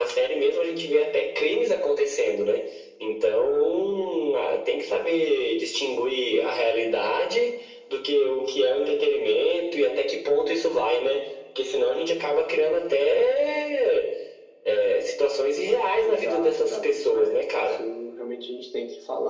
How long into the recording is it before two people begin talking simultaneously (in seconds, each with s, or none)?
16.0 s